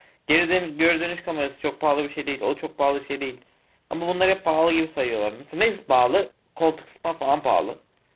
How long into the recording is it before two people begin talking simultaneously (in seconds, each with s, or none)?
none